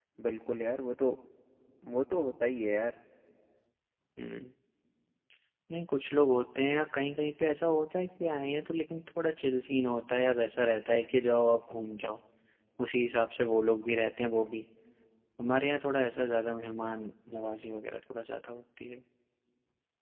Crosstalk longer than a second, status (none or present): none